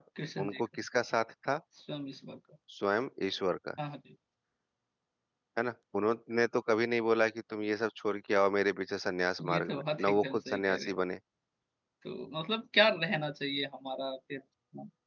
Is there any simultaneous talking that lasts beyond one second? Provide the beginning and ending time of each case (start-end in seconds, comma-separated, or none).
9.5-10.9